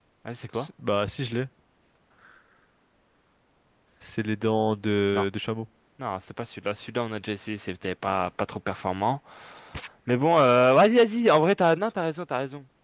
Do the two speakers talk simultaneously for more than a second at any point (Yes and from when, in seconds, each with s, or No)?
No